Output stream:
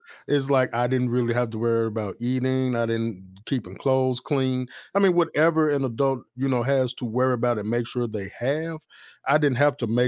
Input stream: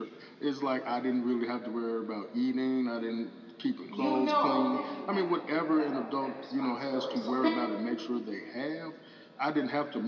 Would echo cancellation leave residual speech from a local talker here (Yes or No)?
Yes